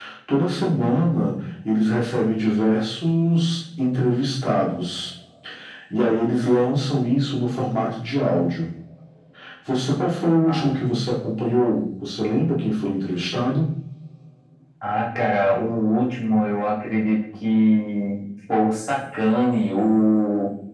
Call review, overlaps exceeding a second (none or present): none